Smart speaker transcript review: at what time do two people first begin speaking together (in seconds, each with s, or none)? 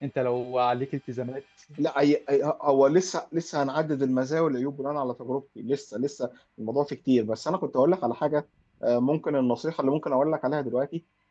none